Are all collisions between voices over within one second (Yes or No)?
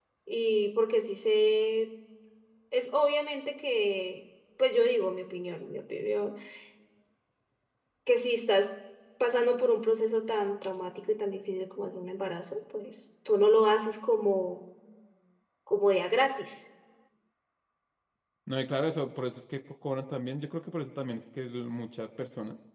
Yes